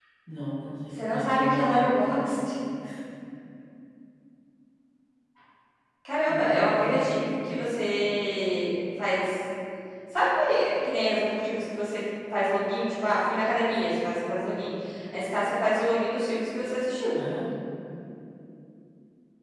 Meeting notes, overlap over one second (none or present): present